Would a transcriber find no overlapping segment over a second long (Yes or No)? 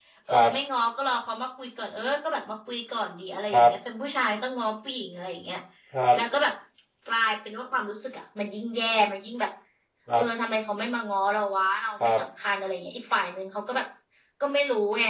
Yes